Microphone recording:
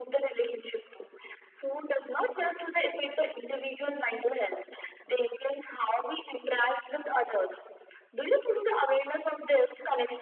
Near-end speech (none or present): none